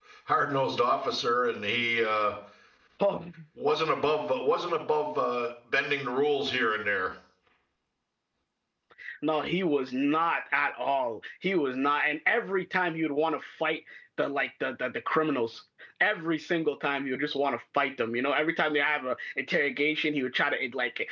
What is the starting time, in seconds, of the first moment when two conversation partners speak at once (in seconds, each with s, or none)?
none